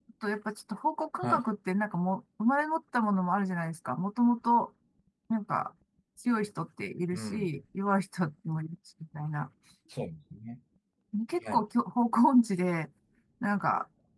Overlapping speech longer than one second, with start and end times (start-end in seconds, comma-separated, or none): none